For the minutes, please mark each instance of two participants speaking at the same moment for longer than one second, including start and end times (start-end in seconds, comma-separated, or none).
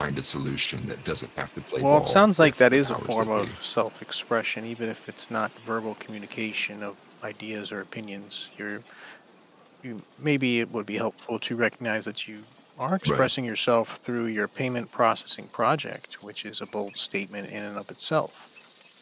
1.8-3.6